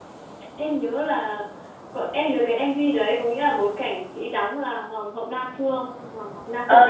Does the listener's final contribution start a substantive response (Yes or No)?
Yes